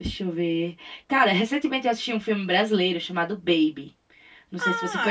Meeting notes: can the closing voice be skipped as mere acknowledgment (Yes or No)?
No